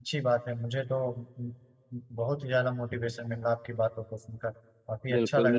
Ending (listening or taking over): taking over